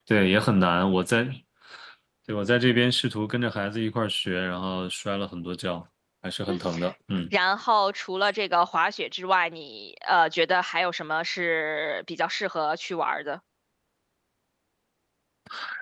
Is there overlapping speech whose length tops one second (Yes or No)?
No